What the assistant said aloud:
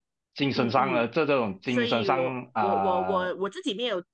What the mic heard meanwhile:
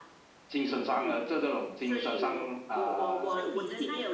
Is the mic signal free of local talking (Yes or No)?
No